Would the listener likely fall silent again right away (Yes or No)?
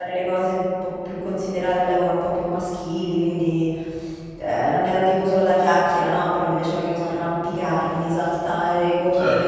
Yes